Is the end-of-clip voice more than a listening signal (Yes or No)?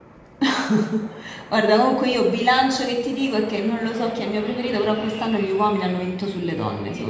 Yes